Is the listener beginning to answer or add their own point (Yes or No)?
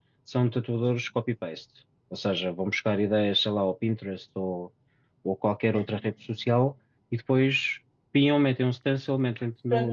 Yes